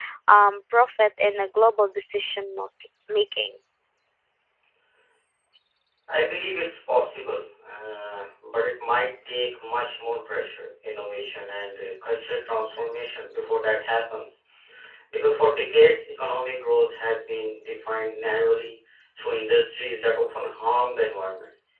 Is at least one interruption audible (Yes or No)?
No